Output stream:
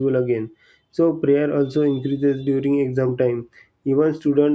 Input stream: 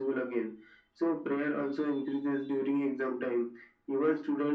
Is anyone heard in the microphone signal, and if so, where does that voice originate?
echo only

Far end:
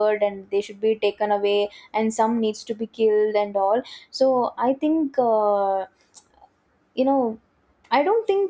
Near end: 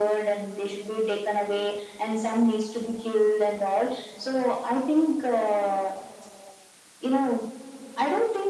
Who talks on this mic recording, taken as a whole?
echo only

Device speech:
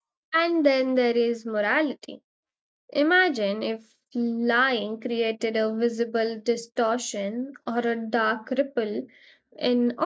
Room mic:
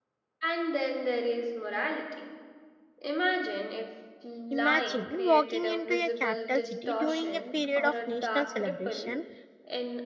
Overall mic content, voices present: both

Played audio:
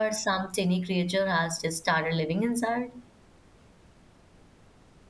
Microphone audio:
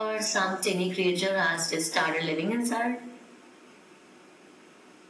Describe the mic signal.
echo only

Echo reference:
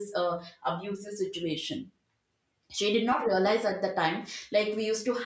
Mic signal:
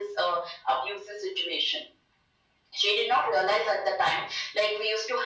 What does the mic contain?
echo only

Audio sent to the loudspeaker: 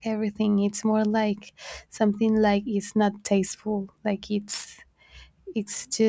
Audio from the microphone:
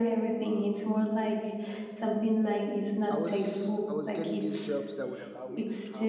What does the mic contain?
both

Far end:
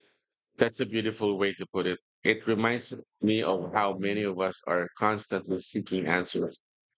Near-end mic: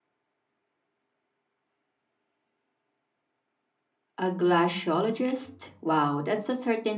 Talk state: user only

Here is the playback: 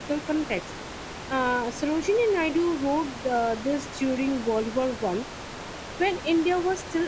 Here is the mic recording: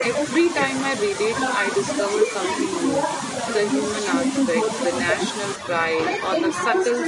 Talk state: both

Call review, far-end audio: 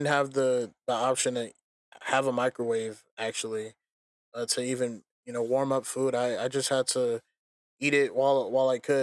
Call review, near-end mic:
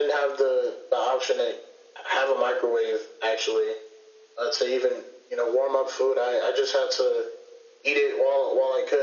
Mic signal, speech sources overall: echo only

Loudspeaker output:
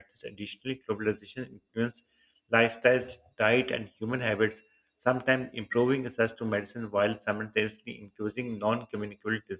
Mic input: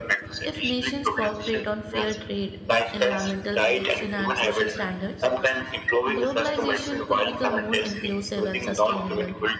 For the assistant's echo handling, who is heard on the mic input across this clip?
both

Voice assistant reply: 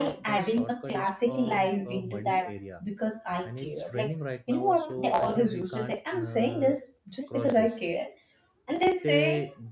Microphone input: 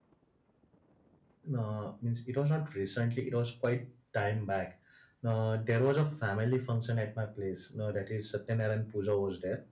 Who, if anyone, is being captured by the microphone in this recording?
user only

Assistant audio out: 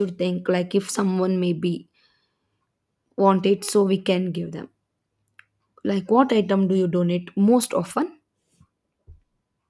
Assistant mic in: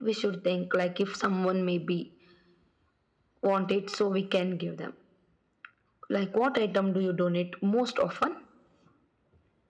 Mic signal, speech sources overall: echo only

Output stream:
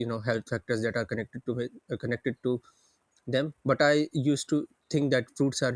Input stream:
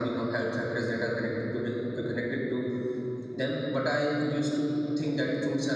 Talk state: echo only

